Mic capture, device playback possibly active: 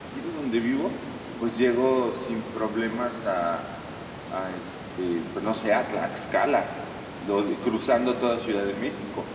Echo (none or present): none